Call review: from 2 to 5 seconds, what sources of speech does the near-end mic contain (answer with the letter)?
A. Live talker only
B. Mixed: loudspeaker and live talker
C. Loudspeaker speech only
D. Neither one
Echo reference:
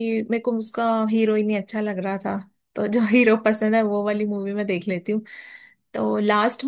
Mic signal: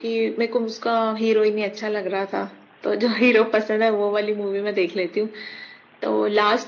C